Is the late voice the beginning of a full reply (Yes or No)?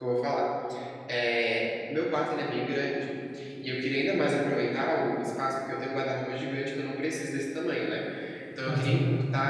No